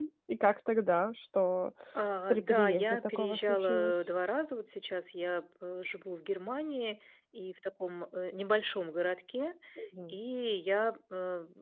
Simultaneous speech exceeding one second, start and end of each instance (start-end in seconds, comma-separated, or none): 2.3-3.9